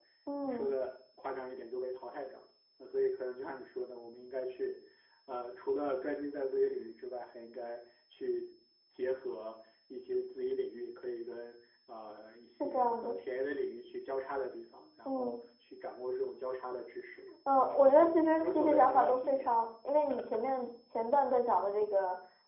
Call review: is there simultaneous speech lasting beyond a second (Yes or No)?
Yes